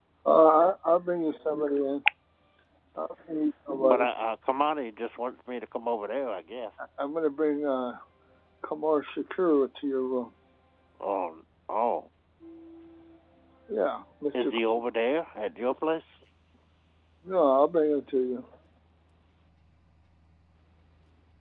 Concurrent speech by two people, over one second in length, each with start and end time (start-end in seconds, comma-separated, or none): none